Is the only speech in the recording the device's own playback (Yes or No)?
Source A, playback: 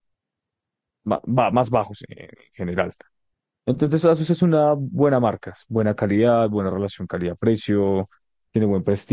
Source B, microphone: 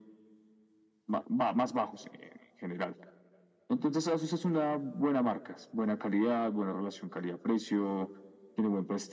Yes